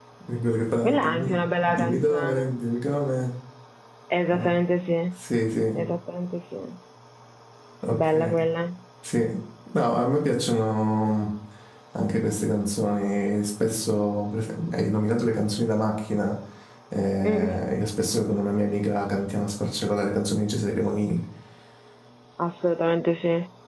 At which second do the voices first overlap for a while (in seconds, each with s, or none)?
0.8 s